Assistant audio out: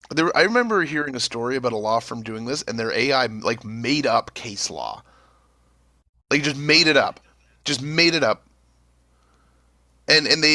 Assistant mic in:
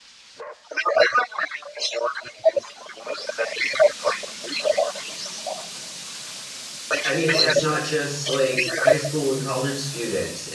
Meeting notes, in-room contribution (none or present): present